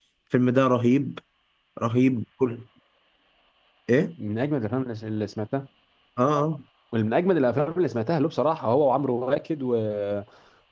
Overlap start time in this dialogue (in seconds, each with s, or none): none